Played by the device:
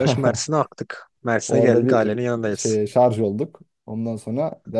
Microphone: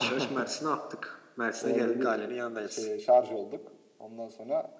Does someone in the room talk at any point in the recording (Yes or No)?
No